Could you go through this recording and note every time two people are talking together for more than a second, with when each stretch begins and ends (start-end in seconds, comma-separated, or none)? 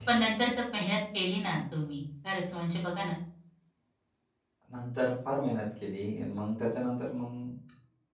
none